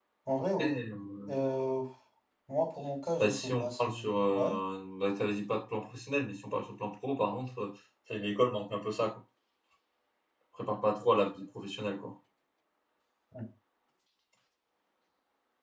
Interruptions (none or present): present